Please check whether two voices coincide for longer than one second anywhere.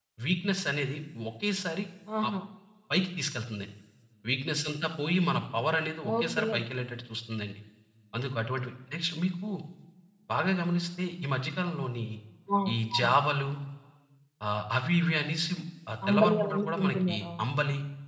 Yes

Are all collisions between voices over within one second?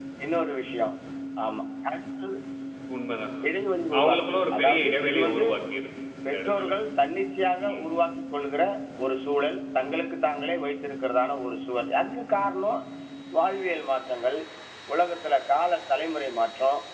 No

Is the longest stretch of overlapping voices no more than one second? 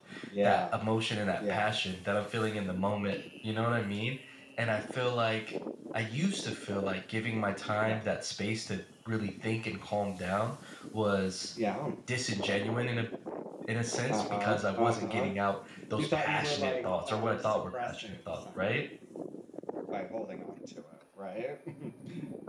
No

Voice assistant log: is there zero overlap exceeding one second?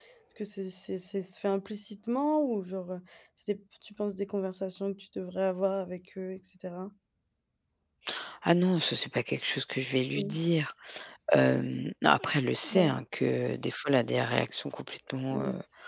Yes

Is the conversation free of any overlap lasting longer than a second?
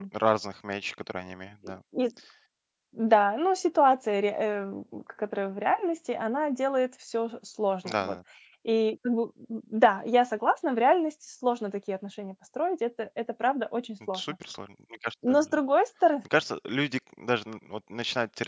Yes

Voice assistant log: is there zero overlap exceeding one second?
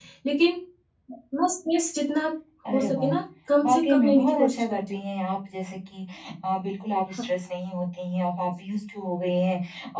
No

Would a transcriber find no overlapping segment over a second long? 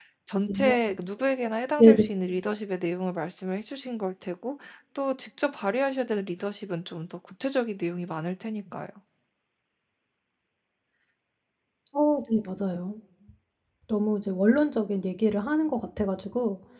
Yes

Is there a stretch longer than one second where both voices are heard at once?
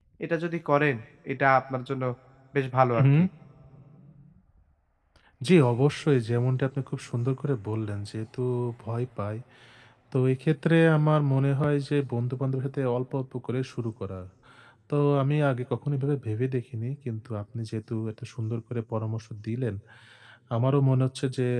No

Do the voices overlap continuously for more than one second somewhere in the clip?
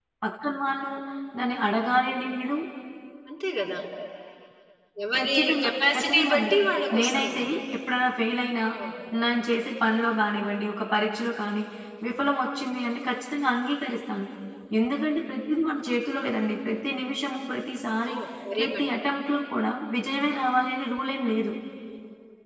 Yes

